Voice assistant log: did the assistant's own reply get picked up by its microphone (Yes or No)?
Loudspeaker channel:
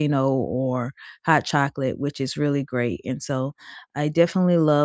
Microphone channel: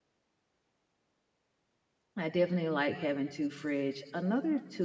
No